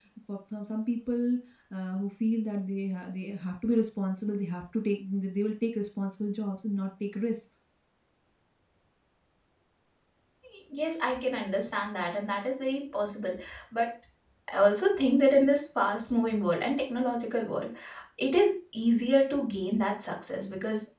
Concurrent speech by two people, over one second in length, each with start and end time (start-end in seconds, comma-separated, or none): none